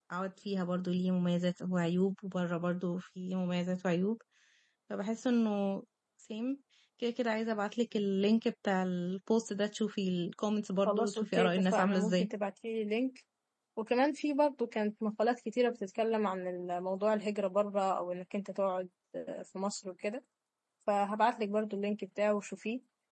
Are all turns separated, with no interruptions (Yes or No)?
No